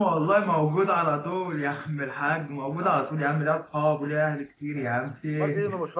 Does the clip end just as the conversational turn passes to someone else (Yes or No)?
Yes